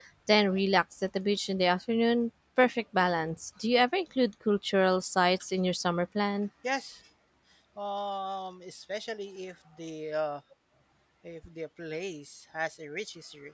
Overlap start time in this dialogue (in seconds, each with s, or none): none